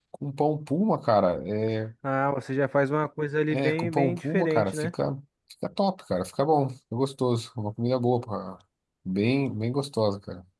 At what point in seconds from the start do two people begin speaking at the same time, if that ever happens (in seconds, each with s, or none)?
3.5 s